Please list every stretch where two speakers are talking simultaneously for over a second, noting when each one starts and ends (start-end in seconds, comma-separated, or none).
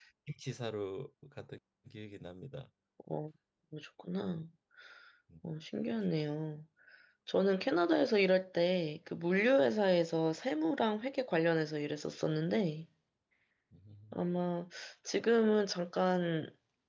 none